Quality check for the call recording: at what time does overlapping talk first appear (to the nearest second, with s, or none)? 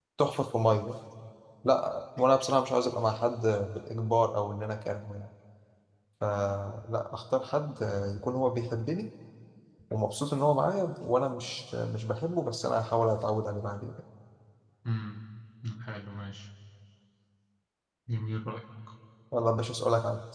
none